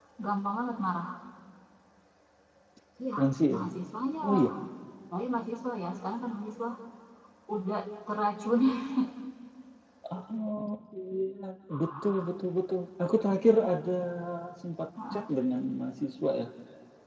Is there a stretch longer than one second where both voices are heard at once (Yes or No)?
No